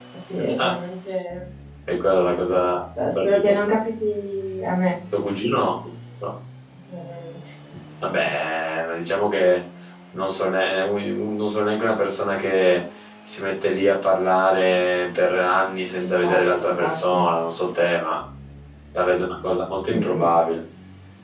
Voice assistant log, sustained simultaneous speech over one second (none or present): present